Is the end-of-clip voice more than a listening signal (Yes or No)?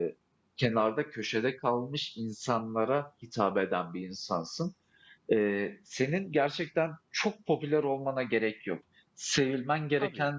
No